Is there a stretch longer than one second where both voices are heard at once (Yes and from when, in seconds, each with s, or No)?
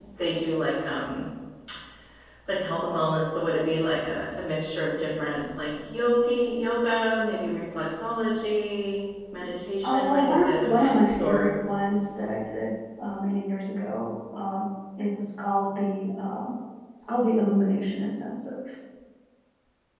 Yes, from 9.8 s